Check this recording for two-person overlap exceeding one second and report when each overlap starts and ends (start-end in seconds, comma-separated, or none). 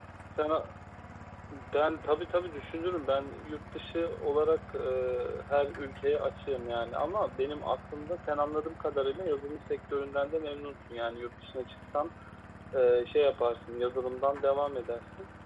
none